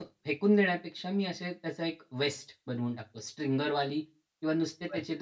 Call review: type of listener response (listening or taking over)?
listening